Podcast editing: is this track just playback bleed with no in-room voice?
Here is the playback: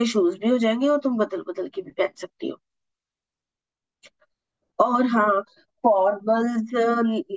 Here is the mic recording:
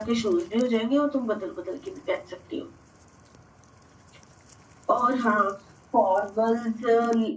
Yes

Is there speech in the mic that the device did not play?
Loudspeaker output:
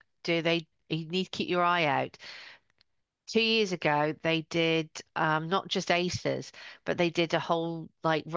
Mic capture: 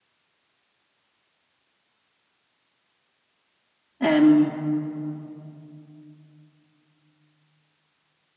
Yes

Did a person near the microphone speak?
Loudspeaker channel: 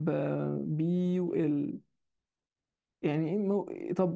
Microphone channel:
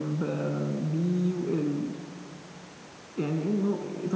No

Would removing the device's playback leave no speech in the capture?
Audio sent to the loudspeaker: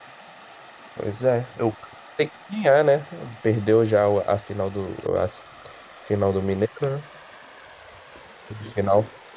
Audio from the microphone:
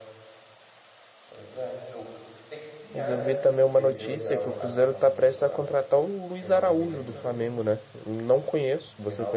No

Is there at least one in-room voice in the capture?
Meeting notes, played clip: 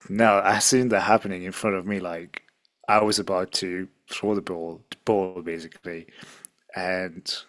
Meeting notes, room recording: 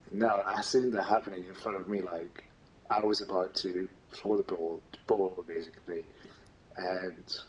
No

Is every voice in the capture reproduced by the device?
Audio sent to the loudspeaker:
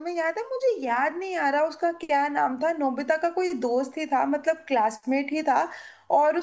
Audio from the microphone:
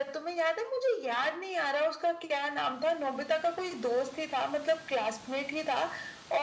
Yes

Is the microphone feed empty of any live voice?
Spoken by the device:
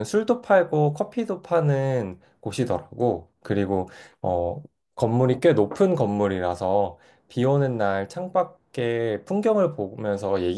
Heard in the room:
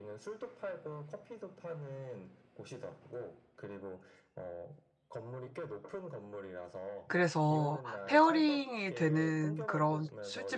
No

